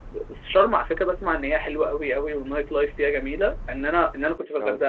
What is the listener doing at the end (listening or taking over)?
listening